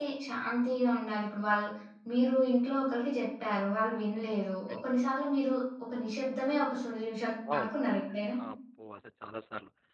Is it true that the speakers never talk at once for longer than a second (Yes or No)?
Yes